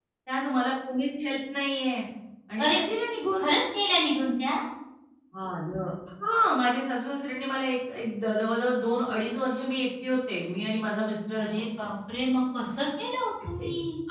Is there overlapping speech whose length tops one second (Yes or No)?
No